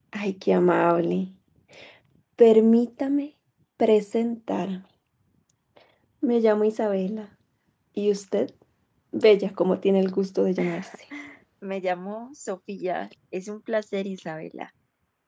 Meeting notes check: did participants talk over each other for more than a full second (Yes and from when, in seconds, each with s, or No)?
No